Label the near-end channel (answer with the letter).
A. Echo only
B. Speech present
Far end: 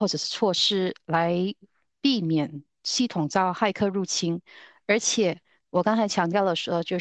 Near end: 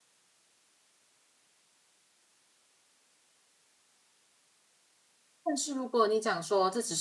B